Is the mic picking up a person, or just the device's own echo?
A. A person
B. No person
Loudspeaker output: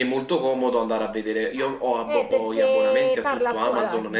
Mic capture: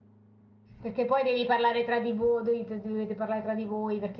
A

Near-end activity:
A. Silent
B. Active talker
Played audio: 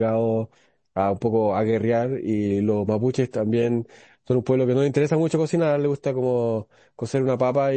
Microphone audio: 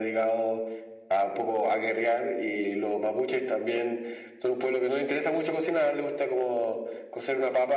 A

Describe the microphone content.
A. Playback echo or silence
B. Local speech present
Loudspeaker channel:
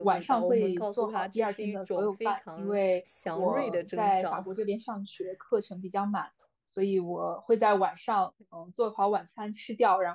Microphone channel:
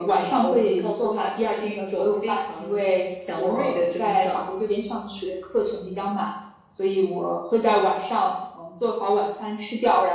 A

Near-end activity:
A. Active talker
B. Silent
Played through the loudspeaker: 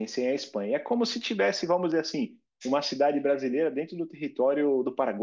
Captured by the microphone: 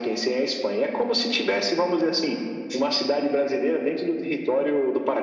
B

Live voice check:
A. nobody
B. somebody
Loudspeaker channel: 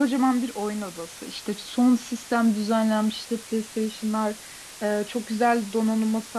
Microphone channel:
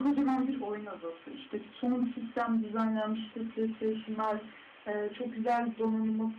A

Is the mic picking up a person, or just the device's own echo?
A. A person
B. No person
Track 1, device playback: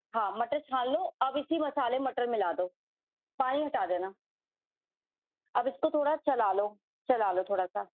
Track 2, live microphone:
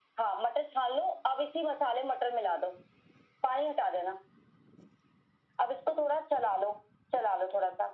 B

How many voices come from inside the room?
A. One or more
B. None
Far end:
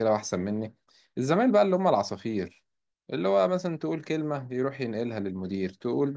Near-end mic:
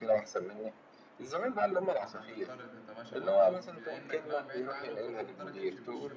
A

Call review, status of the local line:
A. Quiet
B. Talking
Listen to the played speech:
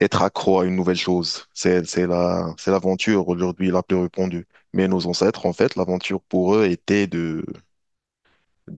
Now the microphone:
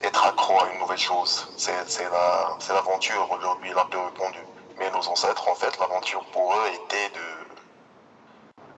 A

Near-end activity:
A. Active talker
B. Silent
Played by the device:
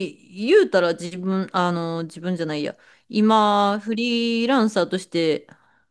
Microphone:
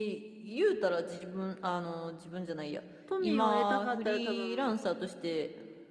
A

